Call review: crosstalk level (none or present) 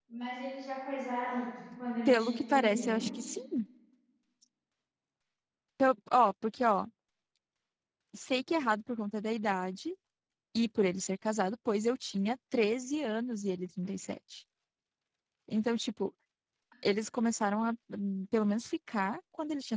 present